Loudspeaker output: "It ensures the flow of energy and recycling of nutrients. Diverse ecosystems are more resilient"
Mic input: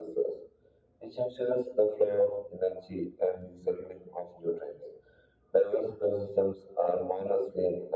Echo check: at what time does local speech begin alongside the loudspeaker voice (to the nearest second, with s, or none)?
none